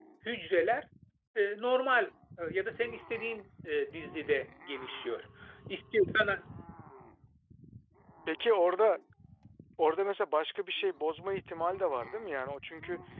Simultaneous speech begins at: none

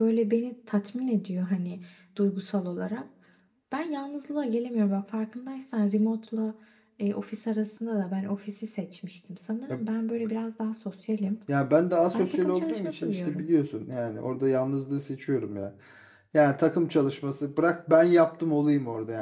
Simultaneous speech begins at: 12.1 s

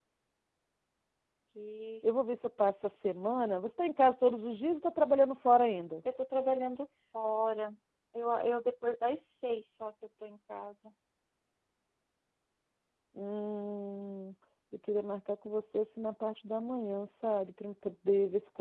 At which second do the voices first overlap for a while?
none

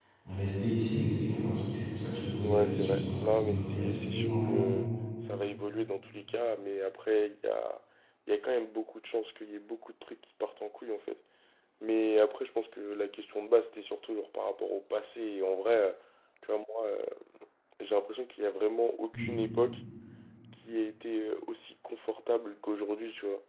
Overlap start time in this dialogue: 2.4 s

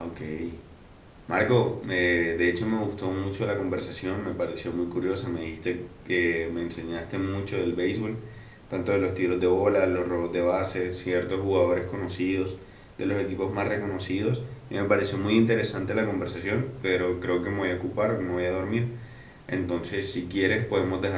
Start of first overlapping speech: none

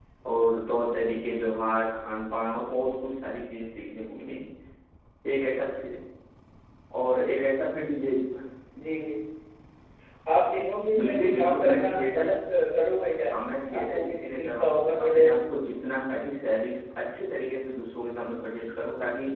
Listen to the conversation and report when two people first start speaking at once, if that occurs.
11.0 s

